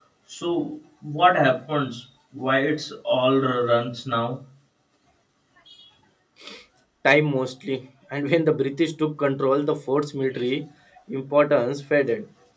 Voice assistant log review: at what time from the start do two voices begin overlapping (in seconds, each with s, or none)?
none